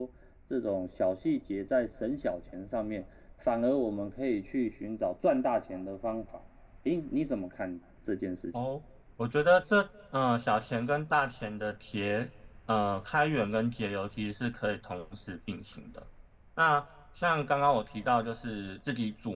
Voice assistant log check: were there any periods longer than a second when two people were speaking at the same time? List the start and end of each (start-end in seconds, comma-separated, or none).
none